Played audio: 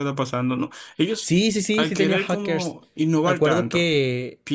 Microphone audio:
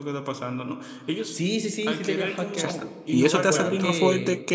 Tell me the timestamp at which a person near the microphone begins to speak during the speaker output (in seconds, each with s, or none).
2.5 s